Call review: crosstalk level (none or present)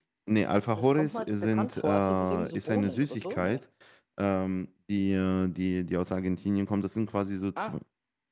present